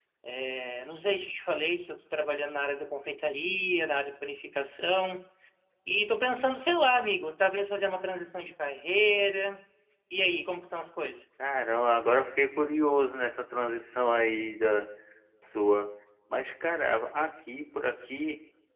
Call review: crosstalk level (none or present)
none